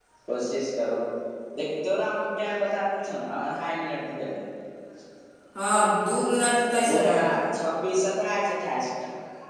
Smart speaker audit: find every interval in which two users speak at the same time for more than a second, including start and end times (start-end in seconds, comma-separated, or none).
none